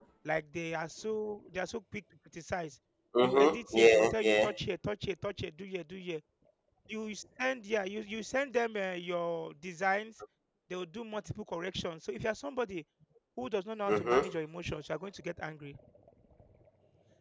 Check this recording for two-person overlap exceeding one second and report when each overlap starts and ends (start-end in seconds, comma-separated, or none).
3.2-4.5